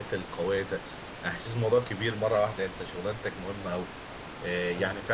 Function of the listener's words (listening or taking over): listening